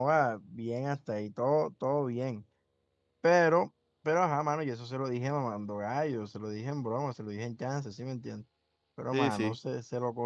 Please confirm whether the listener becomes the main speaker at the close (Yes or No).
No